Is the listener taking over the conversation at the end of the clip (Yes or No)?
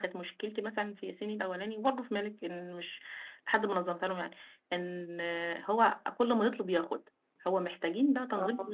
No